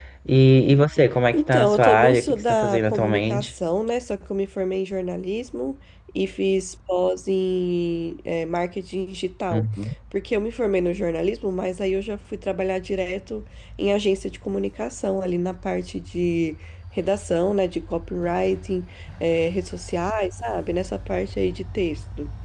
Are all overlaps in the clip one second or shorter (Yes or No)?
No